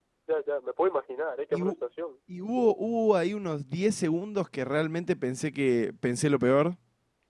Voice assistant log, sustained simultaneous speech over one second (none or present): none